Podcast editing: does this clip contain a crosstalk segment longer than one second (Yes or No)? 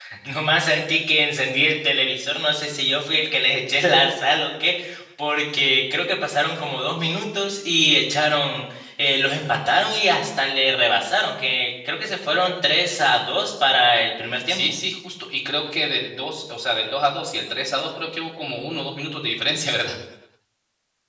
No